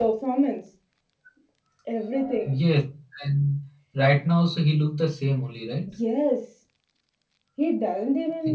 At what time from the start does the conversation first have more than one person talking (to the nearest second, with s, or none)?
none